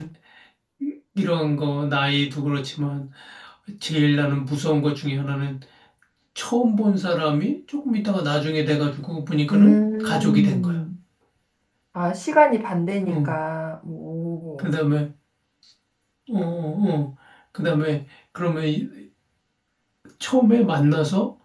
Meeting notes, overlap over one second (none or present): present